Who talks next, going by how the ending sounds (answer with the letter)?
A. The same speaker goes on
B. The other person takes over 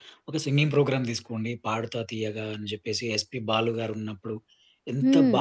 A